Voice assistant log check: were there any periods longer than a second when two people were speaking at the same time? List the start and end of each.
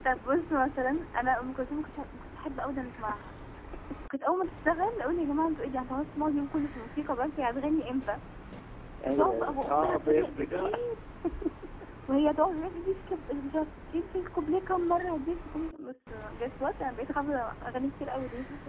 9.1-10.7

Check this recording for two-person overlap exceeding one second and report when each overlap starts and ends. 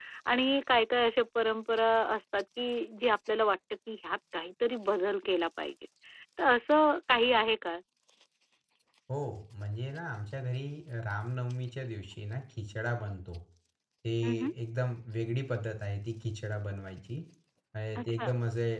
none

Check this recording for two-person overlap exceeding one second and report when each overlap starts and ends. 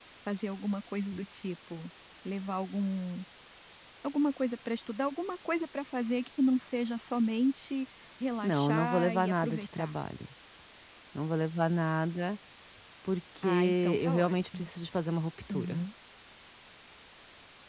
8.4-9.9, 13.4-14.7

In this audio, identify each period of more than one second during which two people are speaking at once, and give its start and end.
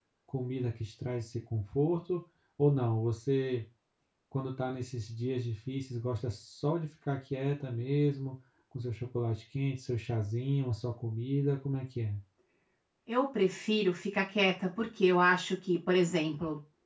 none

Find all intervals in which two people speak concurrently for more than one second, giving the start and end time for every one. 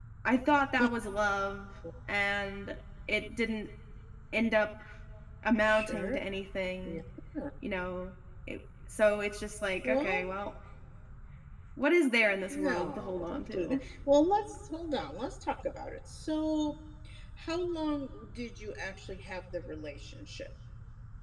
12.5-13.8

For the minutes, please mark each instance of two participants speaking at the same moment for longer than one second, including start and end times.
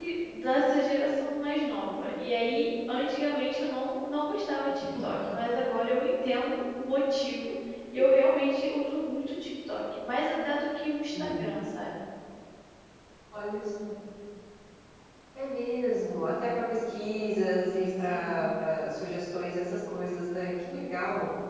none

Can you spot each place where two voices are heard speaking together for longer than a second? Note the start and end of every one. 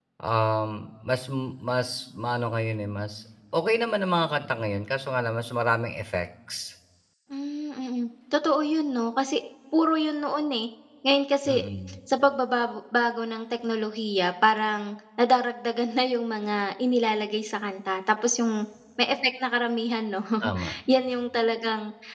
none

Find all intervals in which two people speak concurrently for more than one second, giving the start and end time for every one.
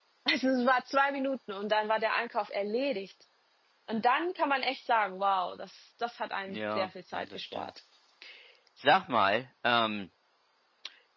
6.5-7.7

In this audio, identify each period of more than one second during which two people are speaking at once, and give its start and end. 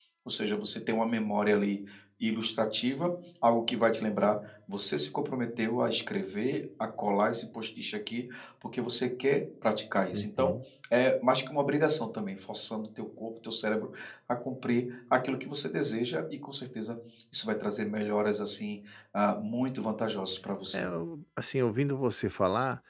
none

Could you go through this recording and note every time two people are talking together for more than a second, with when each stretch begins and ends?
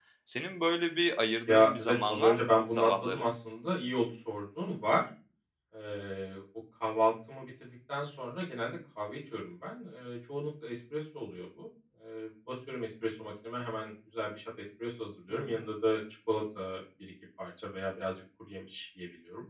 1.5-3.2

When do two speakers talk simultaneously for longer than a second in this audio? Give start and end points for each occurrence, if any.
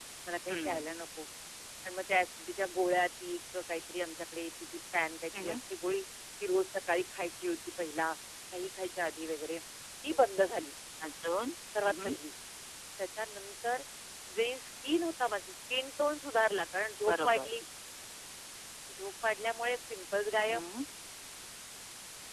none

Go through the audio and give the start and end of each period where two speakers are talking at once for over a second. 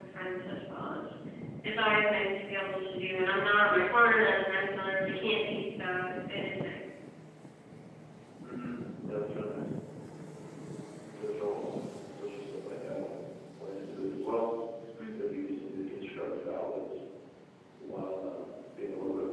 none

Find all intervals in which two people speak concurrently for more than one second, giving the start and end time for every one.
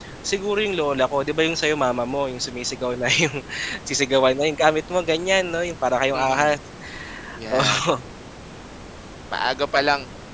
none

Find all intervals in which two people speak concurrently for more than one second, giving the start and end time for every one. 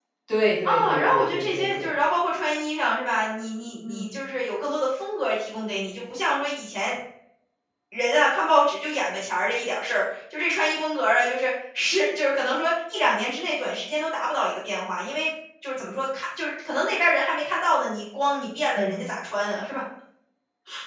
0.6-1.9

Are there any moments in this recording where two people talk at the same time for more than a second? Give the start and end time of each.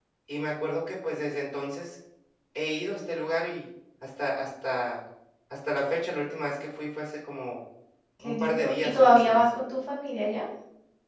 8.2-9.5

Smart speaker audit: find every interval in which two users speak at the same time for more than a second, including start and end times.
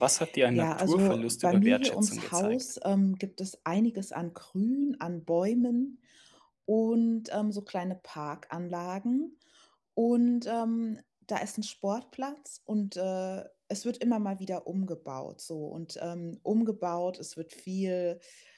0.5-2.6

